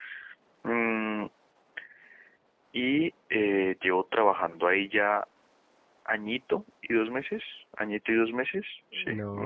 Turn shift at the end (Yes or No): Yes